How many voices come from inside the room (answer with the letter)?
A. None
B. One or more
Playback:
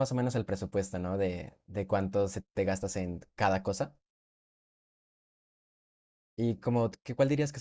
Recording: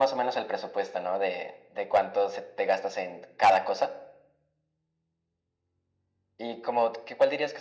A